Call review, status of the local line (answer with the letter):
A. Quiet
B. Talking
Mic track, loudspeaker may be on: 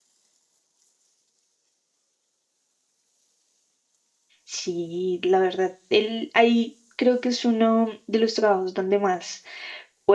B